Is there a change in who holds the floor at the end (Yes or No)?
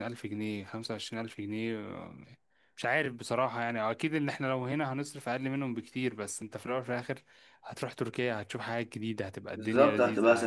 Yes